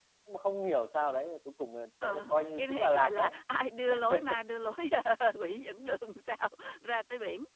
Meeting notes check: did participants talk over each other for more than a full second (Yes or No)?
Yes